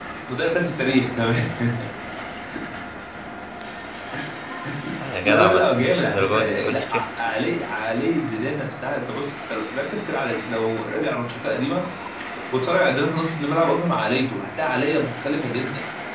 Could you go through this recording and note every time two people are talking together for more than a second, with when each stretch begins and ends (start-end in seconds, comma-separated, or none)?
5.2-7.0